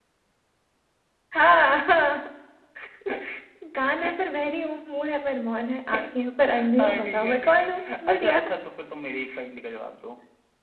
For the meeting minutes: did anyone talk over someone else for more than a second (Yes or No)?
Yes